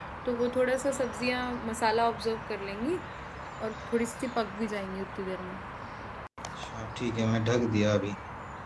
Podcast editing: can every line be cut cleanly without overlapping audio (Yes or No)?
Yes